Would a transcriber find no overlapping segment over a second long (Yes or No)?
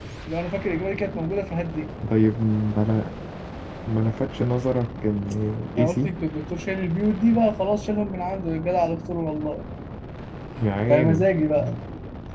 Yes